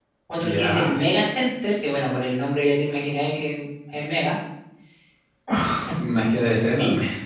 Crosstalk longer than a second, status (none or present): none